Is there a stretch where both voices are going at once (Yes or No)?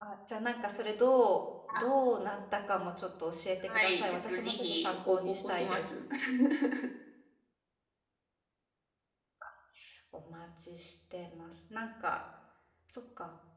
Yes